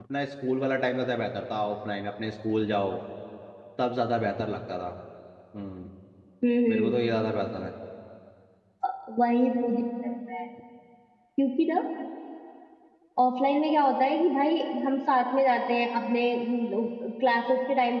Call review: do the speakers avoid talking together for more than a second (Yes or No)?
Yes